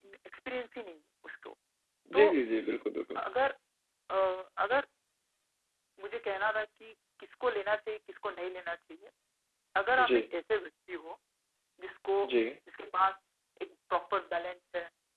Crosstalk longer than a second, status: none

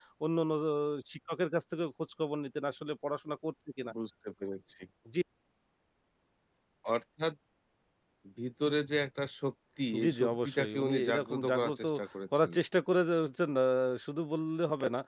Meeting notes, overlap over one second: present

